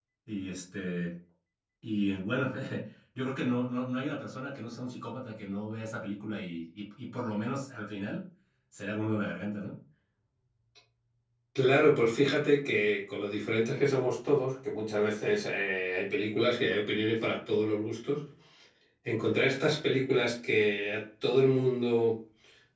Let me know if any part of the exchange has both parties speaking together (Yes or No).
No